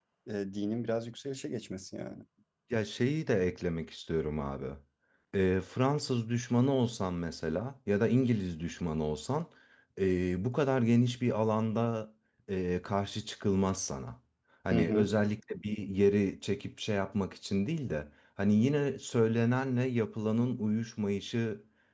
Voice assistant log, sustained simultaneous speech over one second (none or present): none